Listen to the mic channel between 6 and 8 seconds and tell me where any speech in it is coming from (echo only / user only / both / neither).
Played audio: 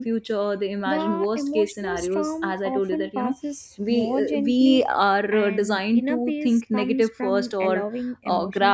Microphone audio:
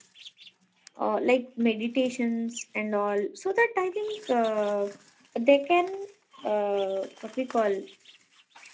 user only